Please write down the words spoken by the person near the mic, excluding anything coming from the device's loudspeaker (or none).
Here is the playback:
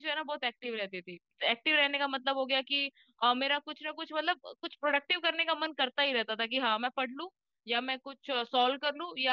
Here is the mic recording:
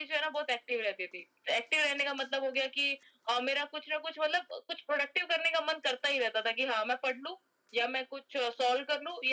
none